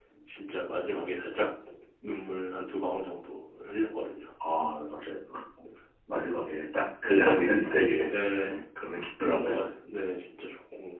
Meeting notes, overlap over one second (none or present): none